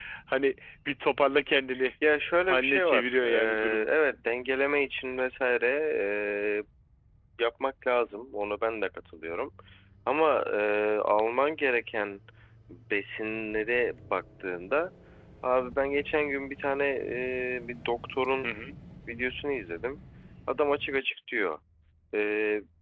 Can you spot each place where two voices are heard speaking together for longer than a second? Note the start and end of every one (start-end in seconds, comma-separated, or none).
2.5-3.9